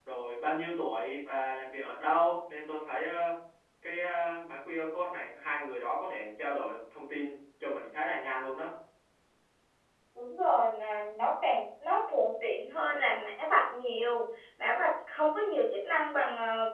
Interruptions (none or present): none